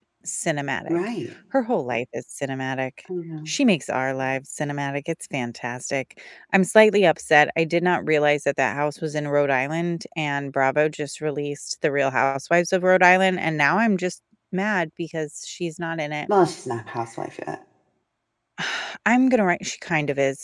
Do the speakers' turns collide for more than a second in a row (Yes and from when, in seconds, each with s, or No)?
No